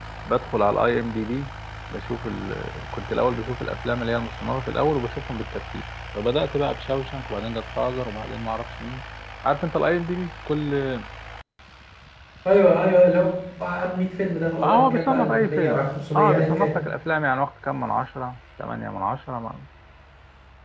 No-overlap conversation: No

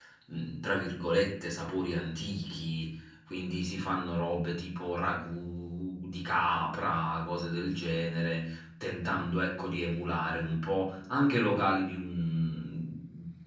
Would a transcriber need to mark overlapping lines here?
No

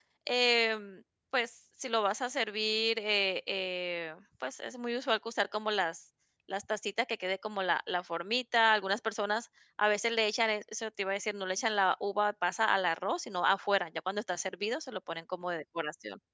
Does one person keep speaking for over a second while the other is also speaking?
No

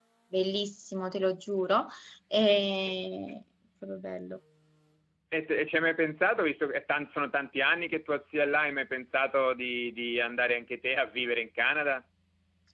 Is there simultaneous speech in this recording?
No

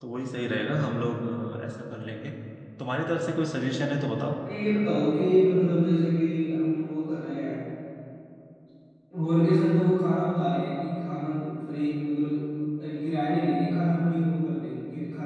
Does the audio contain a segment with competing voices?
No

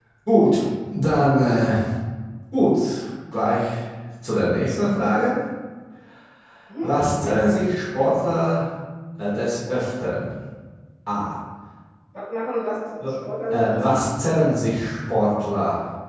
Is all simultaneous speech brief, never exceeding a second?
Yes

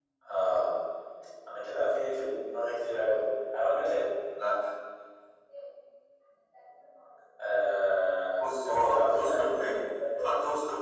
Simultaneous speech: Yes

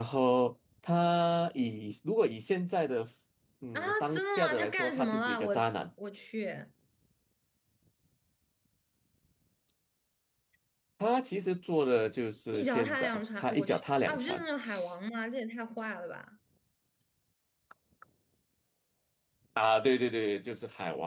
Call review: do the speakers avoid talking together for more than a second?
No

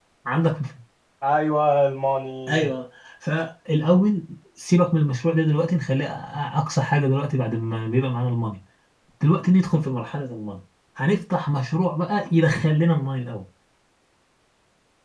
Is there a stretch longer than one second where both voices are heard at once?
No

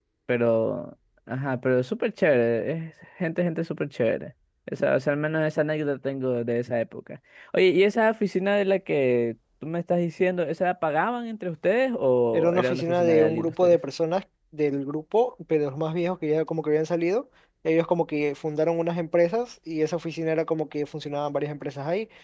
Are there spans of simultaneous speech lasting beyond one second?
Yes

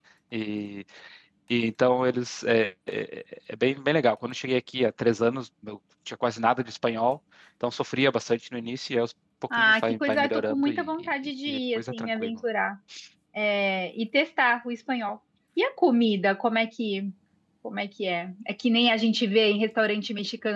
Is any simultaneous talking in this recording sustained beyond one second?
Yes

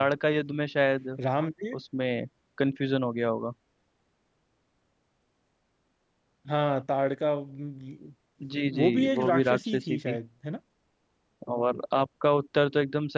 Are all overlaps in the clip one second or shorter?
No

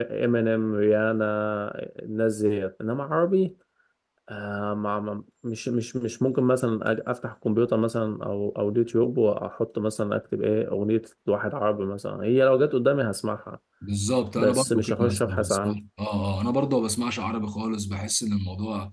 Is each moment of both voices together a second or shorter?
No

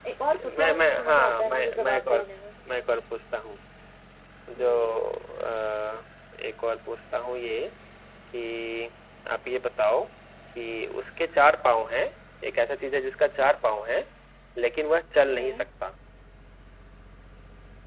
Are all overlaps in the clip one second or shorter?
No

